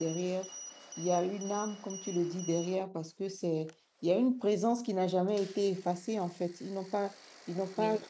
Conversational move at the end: listening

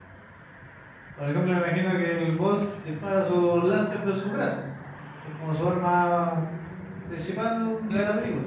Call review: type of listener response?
taking over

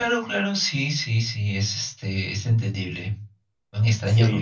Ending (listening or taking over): taking over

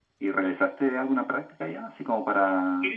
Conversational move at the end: listening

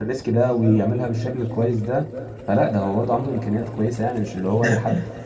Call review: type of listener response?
taking over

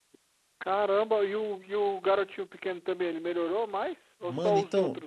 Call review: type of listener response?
taking over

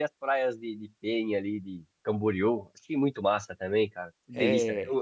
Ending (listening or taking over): listening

